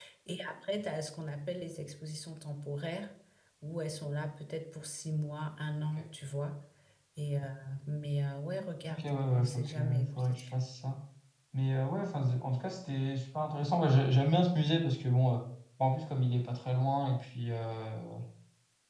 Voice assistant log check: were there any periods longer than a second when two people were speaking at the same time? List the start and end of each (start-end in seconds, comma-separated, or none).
8.9-10.4